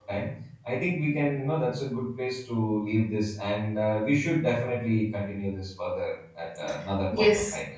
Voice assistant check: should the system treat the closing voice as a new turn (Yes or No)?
Yes